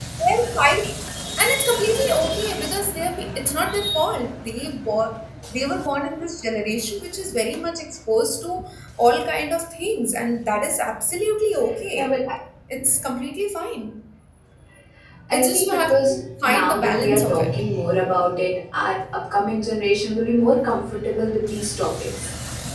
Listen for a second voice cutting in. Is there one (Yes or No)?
Yes